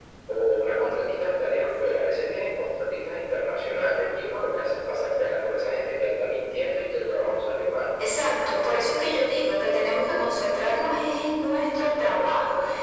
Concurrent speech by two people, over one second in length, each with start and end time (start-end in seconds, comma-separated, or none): none